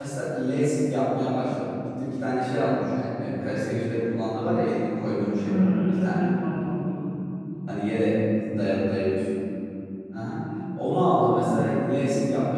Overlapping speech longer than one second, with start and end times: none

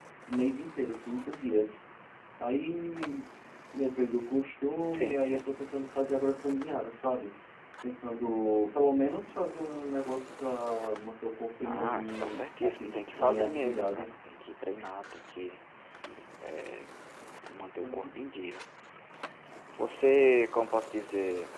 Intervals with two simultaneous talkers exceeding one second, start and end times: 11.6-14.1

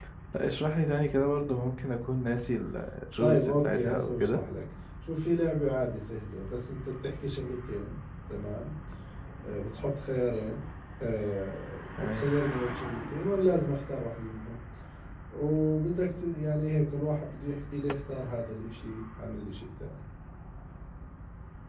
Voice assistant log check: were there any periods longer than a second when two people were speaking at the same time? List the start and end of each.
3.2-4.4

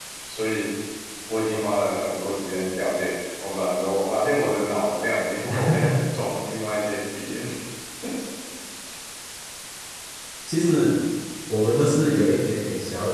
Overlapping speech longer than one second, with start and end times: none

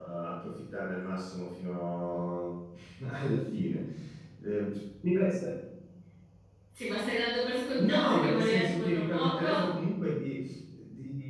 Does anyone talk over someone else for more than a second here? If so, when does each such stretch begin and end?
7.7-9.4

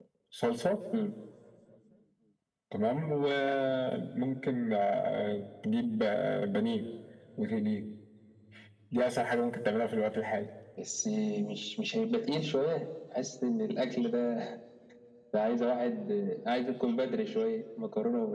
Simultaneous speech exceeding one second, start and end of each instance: none

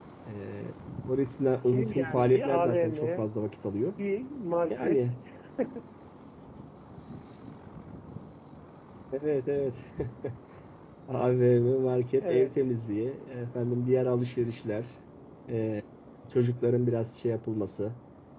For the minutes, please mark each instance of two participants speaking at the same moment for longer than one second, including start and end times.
1.6-3.3

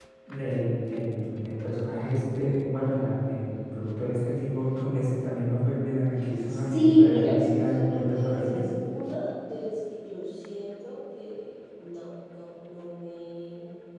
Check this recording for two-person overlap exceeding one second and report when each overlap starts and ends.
6.5-8.6

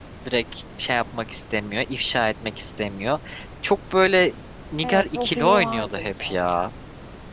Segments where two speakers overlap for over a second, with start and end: 4.8-6.4

